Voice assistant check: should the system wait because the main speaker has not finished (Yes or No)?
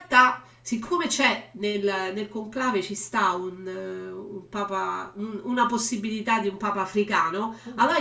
Yes